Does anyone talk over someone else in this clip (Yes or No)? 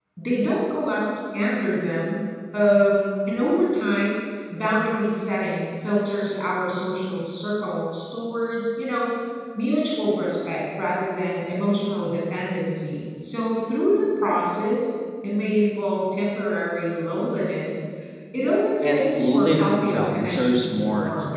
Yes